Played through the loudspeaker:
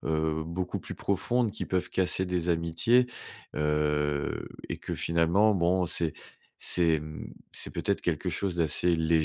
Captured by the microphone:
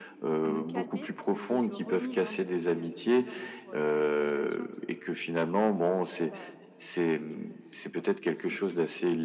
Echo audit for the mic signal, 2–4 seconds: both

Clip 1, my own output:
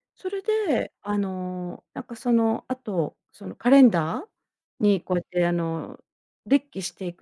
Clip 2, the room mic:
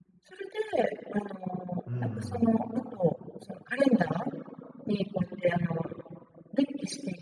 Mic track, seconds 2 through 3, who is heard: both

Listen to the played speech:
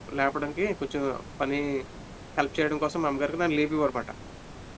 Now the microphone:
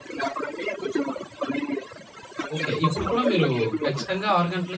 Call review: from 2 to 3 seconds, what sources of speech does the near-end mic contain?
both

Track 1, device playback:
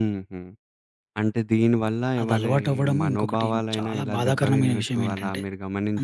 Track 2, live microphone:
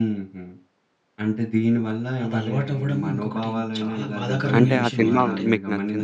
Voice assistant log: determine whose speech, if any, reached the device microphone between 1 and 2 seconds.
echo only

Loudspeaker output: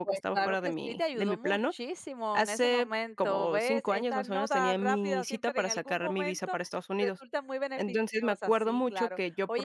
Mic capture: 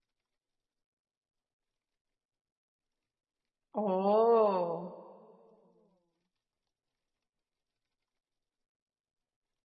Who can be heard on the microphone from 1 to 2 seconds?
neither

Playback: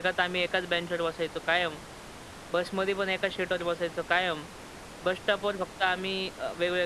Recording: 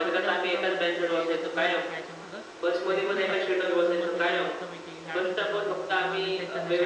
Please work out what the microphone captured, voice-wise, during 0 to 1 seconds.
both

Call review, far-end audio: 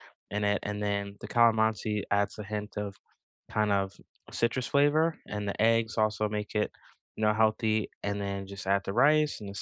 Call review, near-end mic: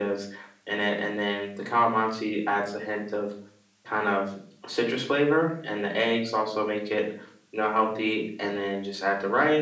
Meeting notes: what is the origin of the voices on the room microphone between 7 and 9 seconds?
echo only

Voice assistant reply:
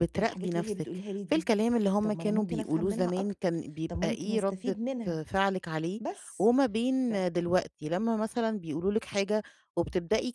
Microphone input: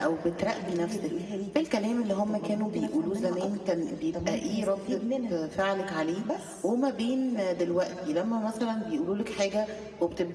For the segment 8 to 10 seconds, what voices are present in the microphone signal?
echo only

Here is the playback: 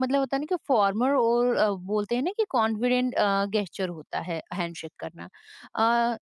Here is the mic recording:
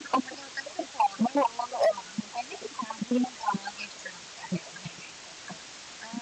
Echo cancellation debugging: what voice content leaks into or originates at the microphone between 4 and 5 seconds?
echo only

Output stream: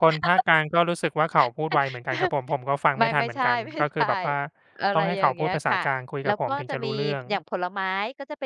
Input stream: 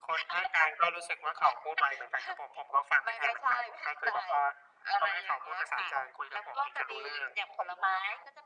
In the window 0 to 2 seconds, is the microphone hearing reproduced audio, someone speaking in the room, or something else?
echo only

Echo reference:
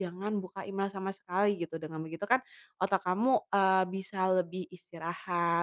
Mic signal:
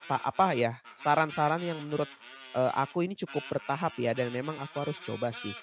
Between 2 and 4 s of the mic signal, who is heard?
user only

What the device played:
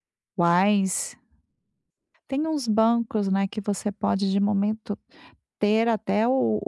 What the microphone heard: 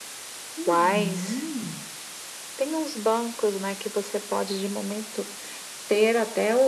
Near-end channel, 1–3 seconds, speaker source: both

